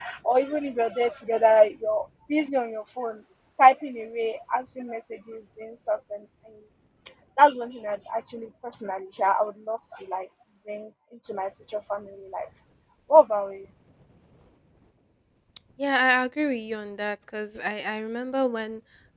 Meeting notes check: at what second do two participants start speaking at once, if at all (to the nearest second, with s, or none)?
none